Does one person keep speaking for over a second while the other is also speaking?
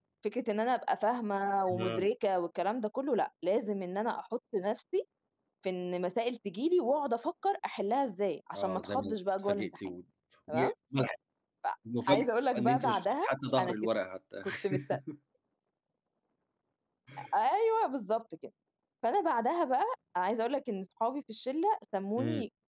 Yes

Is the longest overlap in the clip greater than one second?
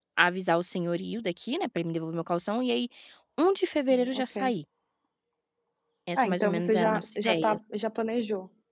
Yes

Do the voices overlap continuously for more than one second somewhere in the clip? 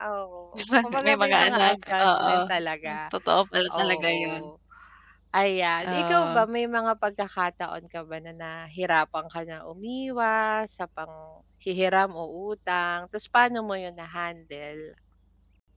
Yes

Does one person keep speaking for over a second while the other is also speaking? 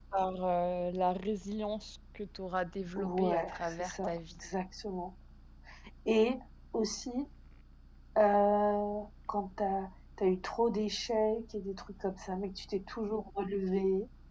Yes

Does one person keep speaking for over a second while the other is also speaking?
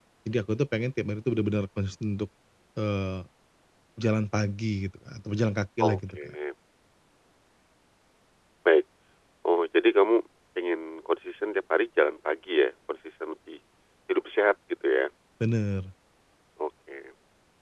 No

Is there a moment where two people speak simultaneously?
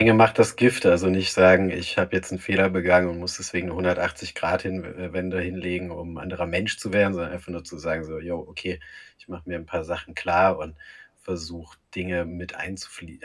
No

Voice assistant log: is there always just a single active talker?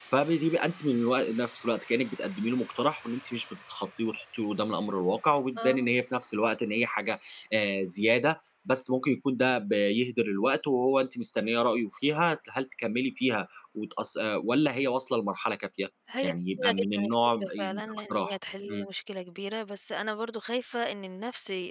No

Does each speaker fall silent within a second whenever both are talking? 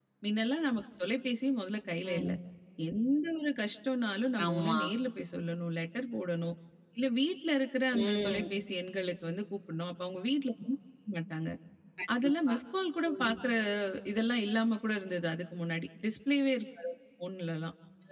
Yes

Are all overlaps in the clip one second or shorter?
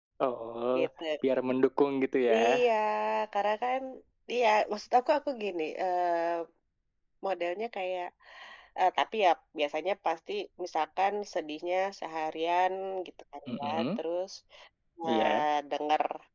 Yes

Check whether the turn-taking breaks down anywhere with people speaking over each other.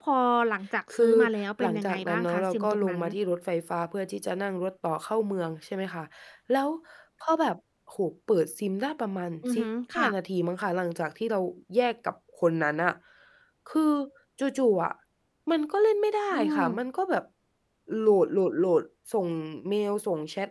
Yes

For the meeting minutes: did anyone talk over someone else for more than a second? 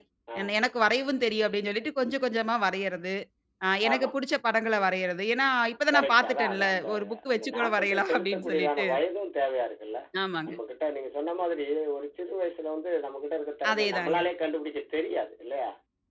Yes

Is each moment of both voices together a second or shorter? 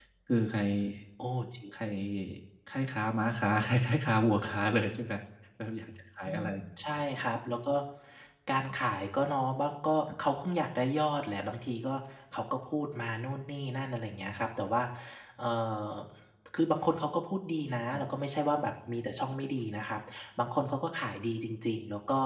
Yes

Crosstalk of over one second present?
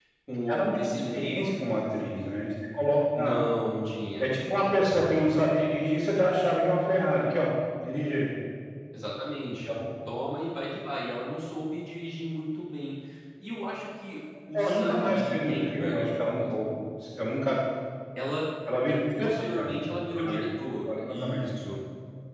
Yes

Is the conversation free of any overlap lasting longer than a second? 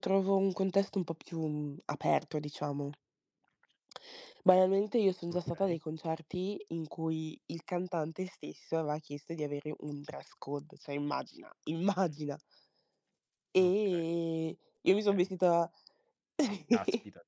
Yes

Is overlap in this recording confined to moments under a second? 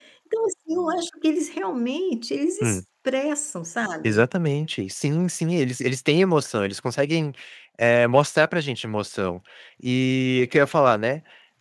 Yes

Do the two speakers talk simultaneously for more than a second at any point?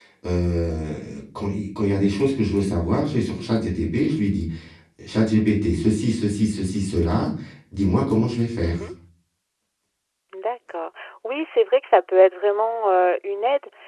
No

